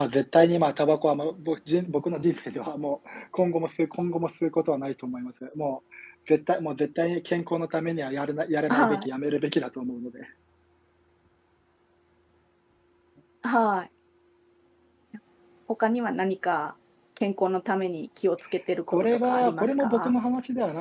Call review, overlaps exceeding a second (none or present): present